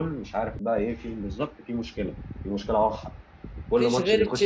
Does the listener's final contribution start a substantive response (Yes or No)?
Yes